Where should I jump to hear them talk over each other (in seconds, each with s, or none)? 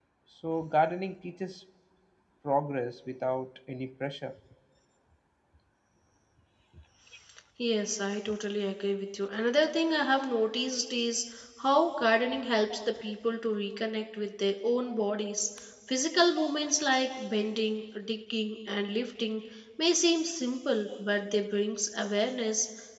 none